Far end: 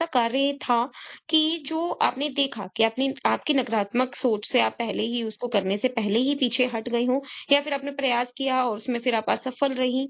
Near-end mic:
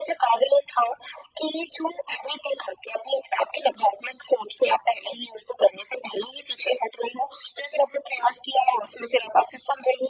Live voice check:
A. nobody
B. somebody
A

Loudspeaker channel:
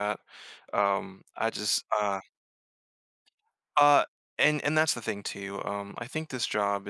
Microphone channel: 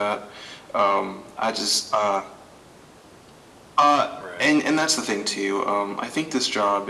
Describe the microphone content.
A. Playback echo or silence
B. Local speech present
B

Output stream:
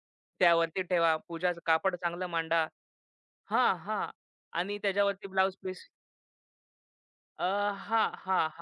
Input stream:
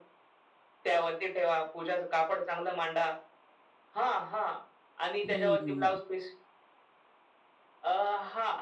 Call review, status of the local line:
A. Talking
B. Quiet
A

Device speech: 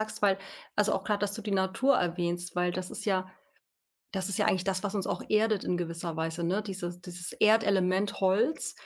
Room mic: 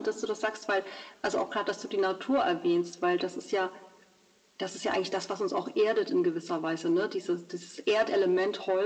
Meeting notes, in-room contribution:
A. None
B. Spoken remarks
A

